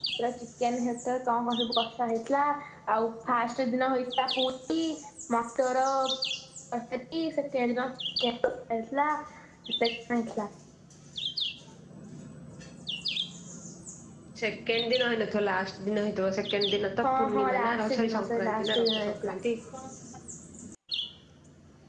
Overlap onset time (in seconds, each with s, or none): 17.0 s